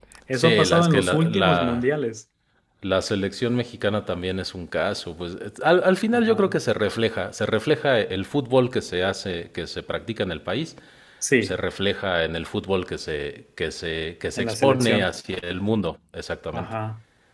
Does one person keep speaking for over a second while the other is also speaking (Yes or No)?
Yes